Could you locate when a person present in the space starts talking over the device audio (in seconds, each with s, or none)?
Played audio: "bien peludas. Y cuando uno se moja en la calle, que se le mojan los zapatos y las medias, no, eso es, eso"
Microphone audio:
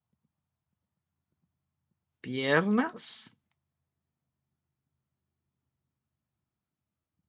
2.2 s